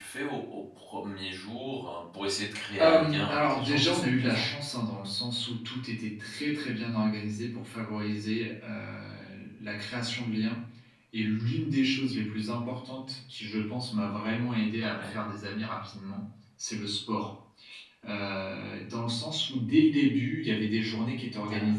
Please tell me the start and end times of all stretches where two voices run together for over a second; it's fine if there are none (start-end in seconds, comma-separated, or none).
2.8-4.5